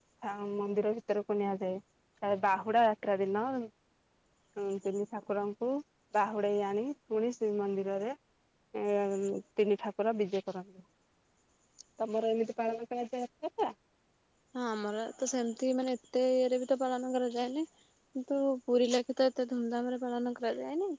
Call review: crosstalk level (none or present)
none